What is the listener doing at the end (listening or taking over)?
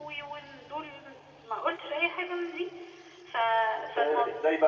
taking over